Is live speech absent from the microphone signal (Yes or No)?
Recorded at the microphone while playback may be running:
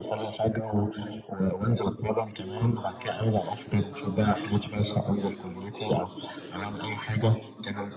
No